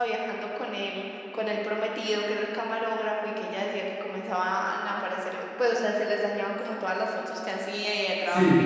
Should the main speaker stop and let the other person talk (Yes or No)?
Yes